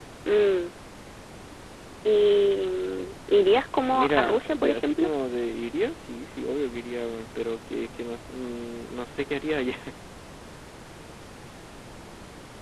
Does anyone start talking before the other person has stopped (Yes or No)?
Yes